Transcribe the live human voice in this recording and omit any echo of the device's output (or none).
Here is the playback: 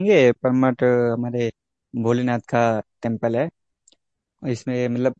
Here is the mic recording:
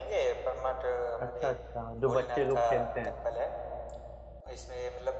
अच्छा अच्छा जो बच्चे लोग खेलते हैं